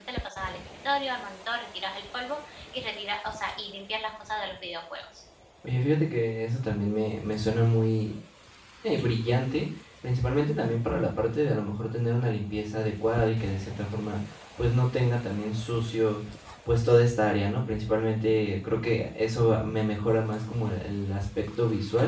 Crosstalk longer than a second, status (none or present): none